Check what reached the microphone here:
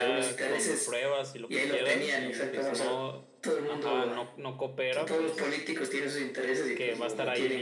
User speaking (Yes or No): Yes